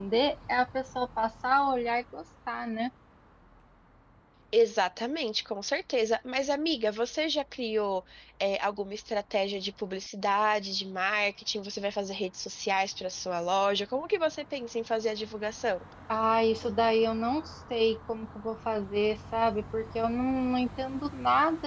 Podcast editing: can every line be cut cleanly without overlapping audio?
Yes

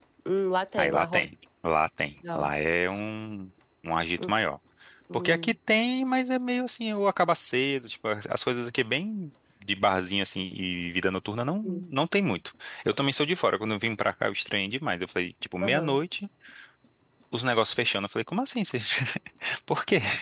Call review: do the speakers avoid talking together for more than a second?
Yes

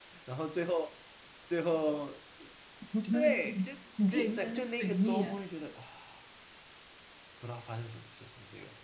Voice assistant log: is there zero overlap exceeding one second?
No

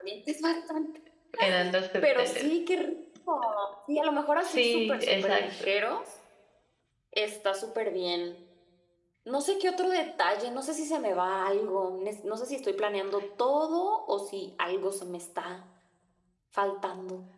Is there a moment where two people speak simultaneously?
Yes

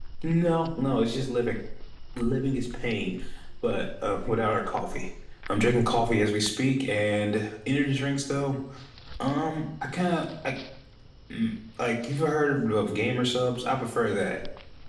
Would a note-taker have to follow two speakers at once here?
No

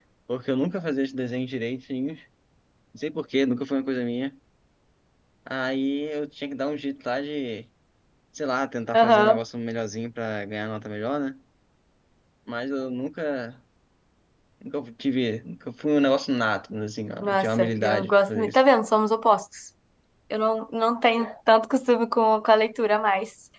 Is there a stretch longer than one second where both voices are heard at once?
Yes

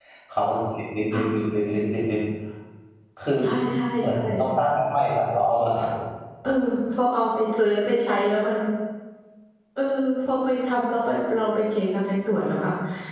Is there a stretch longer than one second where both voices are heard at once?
No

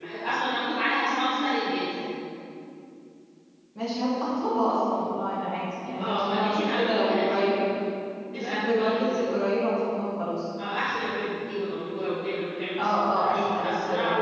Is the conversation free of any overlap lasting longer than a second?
No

